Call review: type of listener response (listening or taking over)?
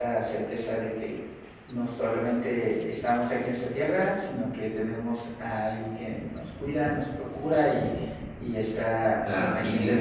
taking over